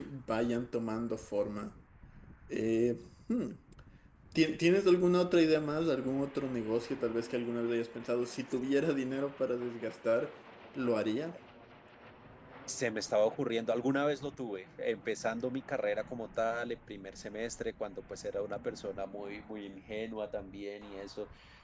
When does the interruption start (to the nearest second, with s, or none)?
none